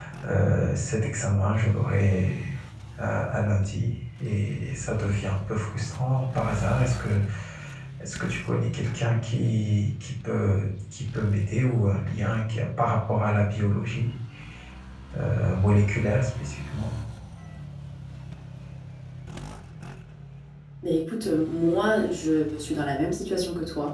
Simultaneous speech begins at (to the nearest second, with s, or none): none